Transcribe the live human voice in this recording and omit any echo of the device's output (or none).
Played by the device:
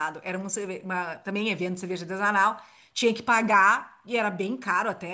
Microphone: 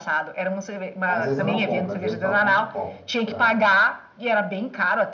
às vezes eu não compro, às vezes só compro o copo pra...